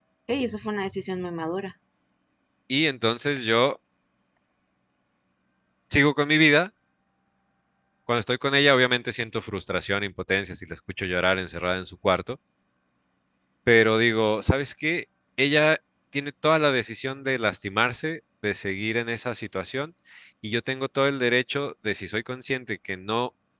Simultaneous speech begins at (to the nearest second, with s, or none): none